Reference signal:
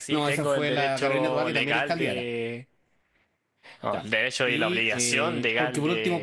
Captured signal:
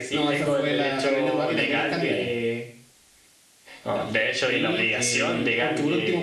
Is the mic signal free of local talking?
Yes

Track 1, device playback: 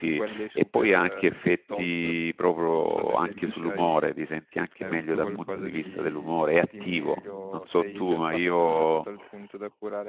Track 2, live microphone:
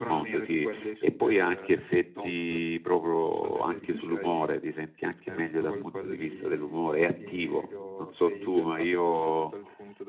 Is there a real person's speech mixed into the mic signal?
No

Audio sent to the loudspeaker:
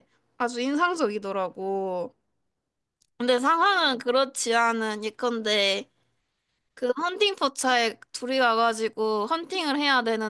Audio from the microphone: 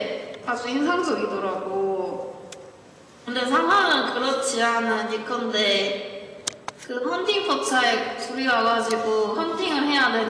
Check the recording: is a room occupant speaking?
No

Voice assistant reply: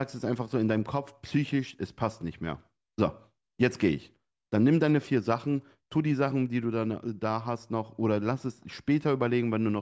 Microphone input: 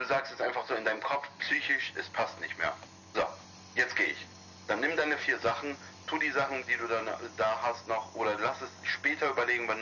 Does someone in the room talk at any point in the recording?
No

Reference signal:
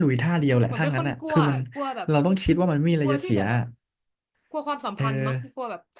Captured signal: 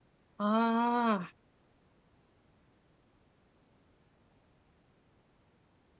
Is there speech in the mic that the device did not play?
Yes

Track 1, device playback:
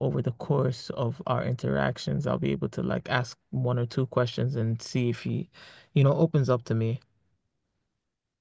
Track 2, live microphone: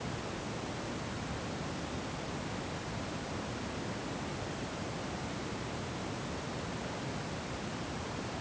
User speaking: No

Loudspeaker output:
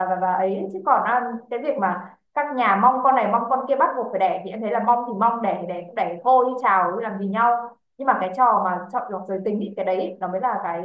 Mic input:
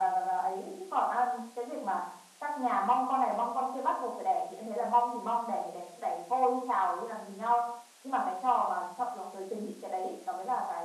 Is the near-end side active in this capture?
No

